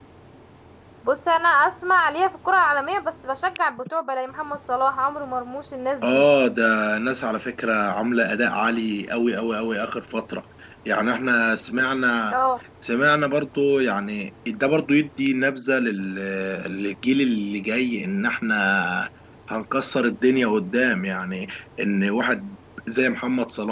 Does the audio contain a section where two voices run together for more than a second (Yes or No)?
No